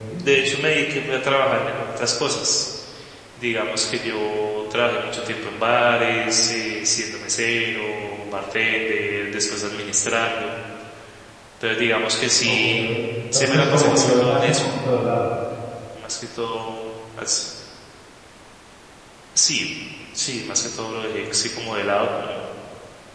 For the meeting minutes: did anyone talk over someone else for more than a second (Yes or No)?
Yes